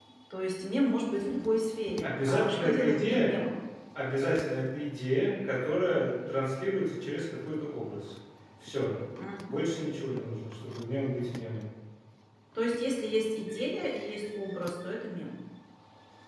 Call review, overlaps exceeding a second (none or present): present